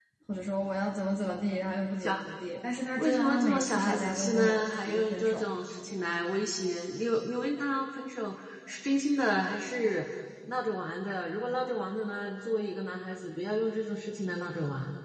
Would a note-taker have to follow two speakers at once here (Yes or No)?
Yes